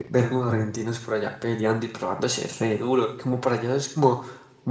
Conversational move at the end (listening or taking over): listening